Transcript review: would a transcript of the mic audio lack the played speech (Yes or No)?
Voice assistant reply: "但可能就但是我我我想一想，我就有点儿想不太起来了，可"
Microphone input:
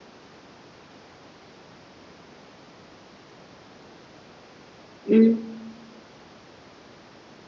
Yes